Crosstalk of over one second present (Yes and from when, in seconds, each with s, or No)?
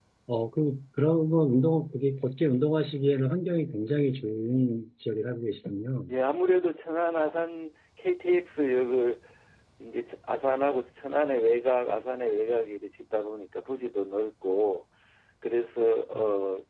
No